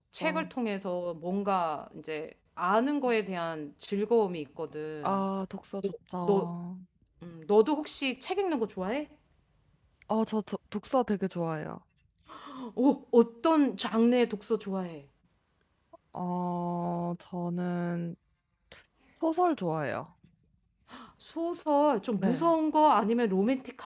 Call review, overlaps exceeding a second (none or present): none